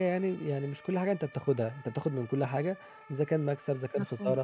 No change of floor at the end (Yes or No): Yes